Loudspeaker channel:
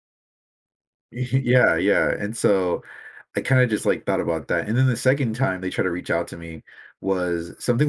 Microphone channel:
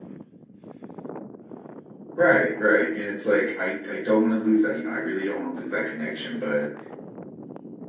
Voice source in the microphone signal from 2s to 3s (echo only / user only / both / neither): user only